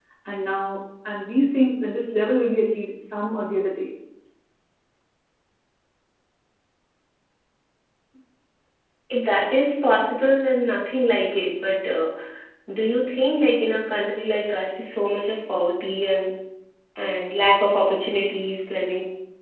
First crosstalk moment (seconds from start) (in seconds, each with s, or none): none